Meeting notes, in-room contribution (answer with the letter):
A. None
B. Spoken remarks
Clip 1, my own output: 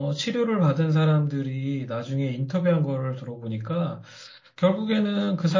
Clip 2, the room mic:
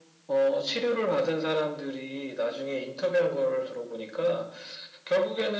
A